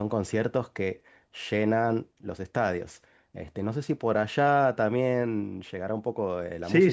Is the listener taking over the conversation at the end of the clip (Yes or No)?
Yes